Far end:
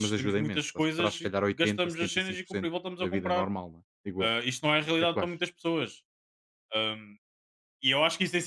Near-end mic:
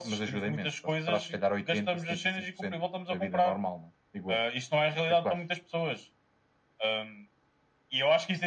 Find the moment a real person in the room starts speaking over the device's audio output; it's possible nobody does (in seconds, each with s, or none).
none